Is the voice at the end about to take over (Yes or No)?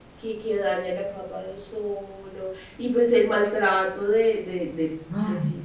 No